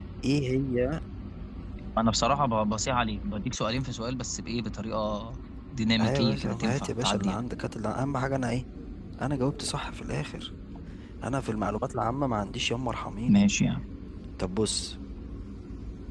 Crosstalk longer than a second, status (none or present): present